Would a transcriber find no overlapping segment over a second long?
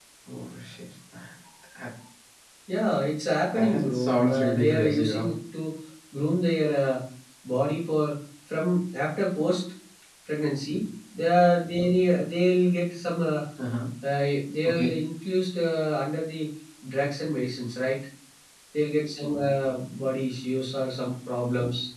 No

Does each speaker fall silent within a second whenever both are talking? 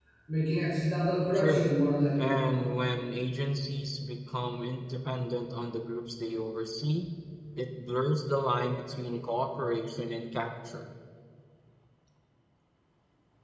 Yes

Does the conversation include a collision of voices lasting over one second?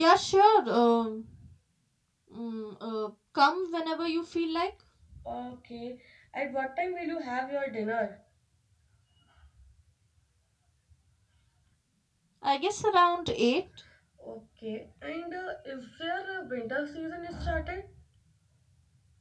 No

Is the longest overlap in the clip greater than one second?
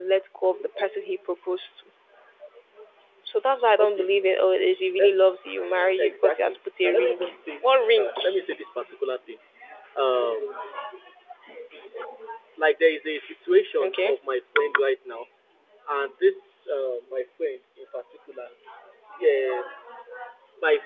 Yes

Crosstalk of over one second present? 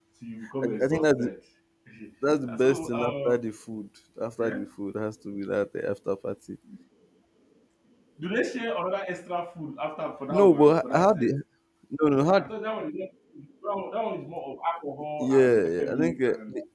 Yes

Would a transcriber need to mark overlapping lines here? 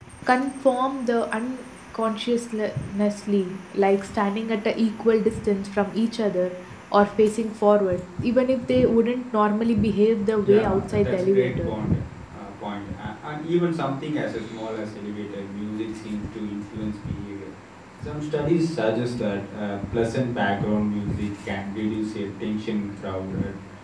Yes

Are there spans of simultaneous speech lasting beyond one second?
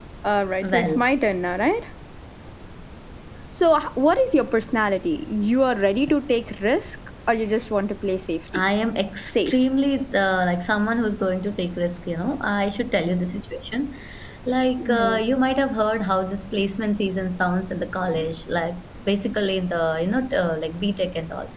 No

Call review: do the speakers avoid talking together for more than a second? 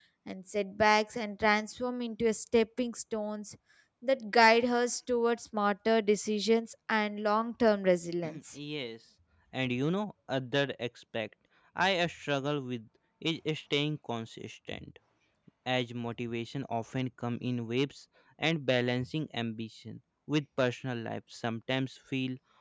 Yes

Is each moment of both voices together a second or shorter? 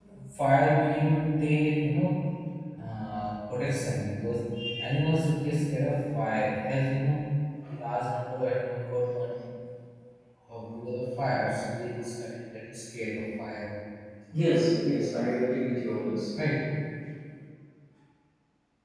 Yes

